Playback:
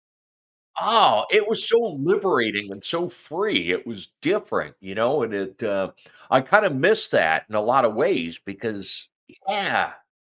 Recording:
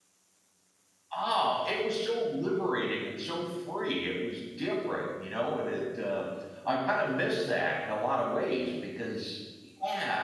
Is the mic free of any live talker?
Yes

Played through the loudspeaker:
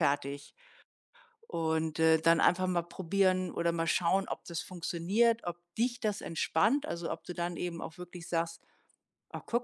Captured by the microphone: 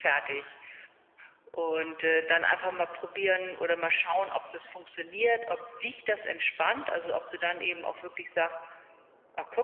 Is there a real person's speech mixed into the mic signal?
No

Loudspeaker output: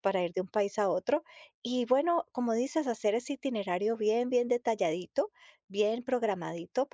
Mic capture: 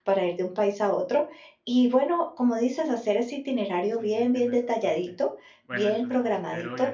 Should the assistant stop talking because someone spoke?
Yes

